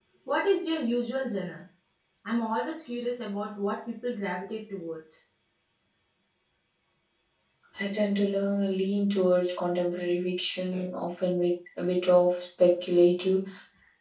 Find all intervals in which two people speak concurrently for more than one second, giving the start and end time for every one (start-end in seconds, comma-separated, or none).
none